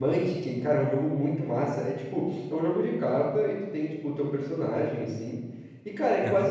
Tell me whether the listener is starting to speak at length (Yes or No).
No